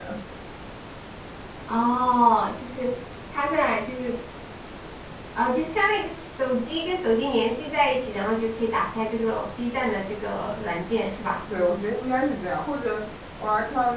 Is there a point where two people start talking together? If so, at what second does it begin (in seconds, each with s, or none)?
none